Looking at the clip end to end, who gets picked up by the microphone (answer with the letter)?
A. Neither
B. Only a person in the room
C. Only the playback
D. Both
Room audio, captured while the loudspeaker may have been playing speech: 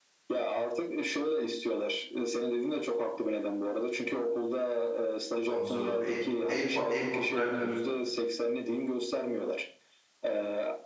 D